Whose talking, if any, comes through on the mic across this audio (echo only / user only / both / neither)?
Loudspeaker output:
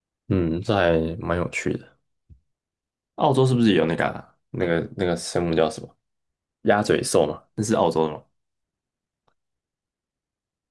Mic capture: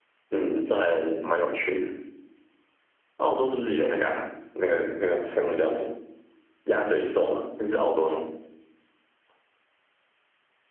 echo only